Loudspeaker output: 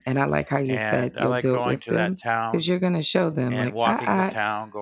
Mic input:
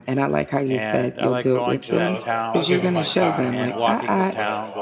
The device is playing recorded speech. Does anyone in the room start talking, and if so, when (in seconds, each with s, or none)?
1.8 s